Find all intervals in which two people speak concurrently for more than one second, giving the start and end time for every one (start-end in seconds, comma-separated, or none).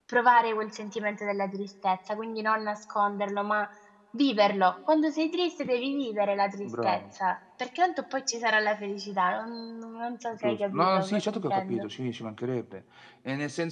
10.4-11.8